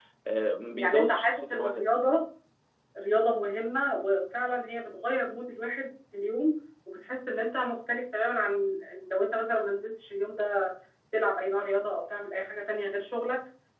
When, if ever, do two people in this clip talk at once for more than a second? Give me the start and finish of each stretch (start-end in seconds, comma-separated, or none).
0.6-1.9